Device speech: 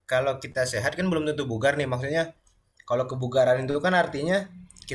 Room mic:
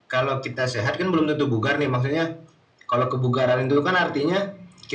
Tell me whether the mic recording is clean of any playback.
No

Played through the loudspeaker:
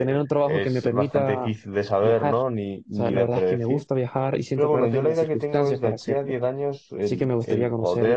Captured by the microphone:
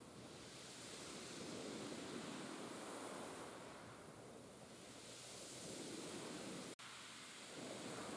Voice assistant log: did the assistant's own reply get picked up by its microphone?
No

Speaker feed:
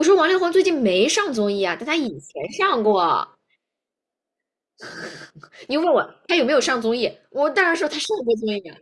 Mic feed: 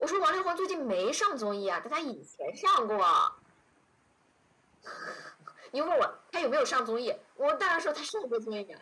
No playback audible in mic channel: No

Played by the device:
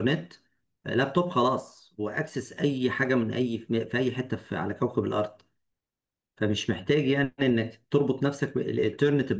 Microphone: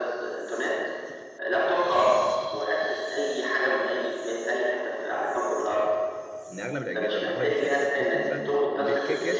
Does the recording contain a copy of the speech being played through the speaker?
Yes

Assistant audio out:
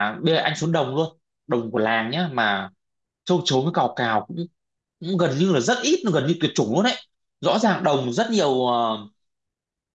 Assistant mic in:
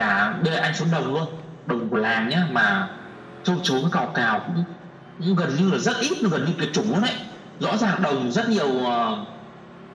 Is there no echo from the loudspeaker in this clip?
No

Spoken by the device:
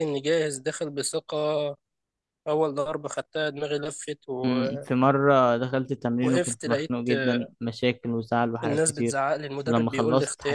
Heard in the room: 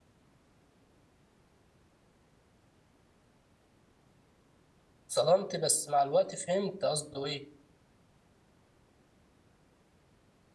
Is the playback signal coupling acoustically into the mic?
No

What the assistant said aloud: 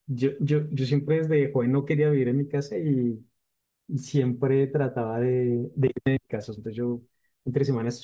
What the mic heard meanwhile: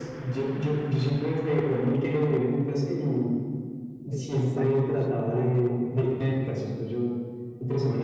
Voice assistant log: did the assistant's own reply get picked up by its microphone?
Yes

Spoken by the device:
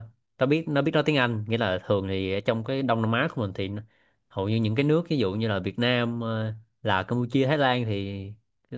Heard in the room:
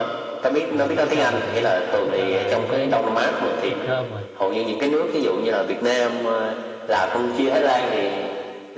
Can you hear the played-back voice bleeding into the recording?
Yes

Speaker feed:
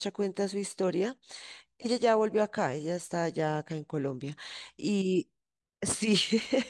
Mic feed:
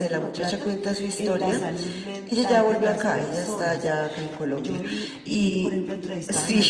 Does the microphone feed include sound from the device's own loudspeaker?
Yes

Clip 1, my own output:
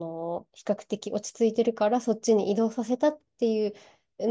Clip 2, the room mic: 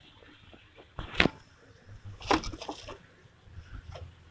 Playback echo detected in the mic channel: No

